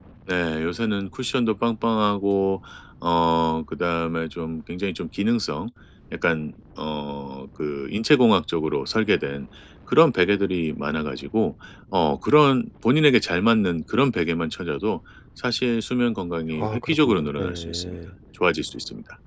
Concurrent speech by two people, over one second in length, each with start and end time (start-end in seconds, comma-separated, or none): 16.5-17.9